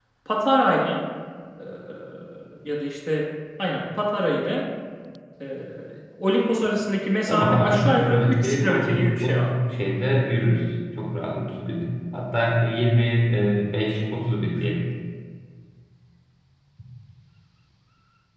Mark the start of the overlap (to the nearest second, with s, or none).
7 s